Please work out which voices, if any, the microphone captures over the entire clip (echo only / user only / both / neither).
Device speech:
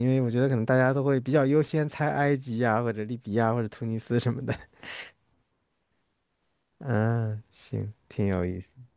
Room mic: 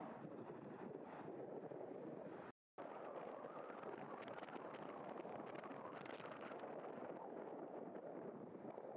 neither